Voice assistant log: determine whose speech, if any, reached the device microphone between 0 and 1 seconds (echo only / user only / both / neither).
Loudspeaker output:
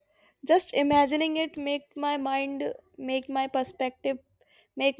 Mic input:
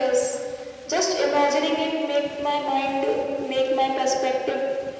echo only